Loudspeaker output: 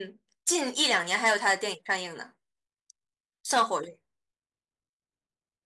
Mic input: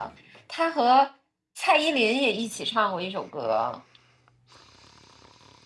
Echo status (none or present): none